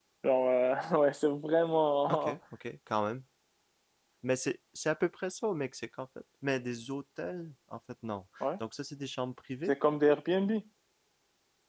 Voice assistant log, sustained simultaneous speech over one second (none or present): none